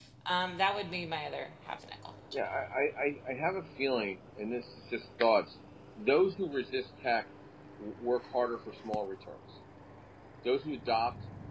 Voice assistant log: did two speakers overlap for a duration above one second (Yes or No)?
No